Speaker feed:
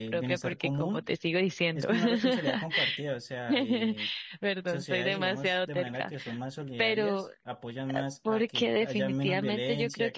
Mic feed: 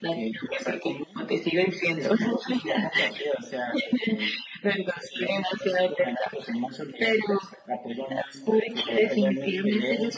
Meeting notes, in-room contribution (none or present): none